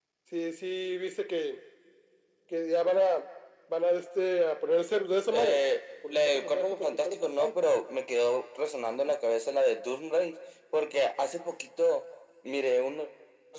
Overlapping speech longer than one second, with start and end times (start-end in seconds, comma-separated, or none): 6.1-7.5